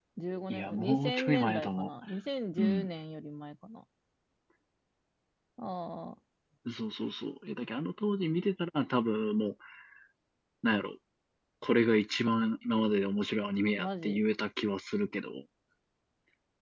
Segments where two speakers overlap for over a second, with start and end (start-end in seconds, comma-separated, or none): 0.5-1.9